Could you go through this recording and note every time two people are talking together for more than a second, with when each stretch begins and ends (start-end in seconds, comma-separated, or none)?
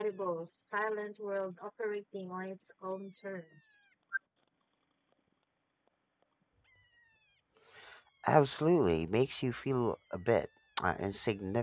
none